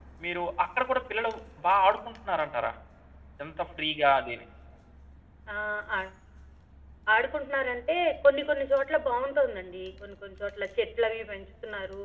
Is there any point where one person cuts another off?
No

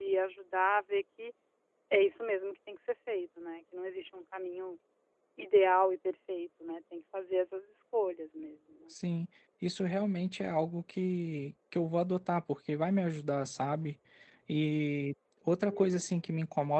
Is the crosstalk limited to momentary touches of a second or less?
Yes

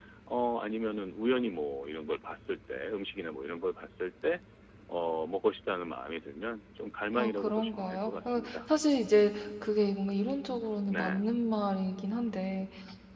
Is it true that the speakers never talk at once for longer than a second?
No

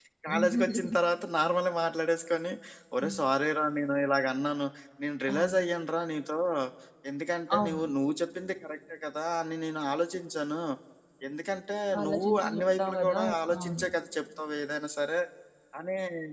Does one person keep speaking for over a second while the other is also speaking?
Yes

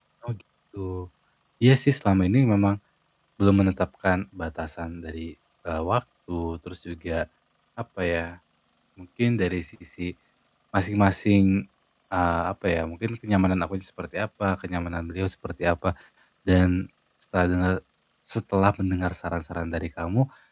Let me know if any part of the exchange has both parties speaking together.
No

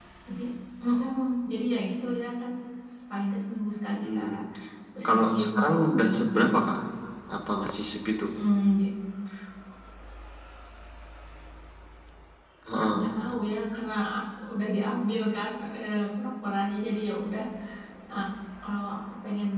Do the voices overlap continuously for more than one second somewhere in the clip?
Yes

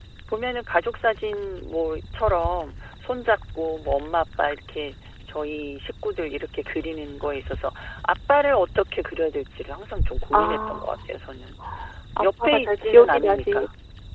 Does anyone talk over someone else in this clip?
Yes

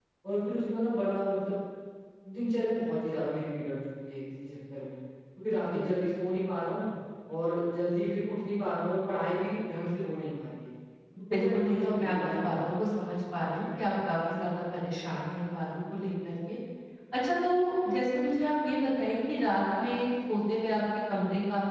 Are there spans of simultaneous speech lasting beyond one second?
Yes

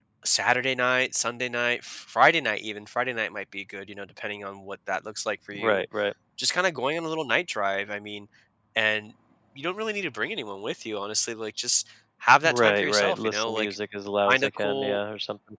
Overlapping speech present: Yes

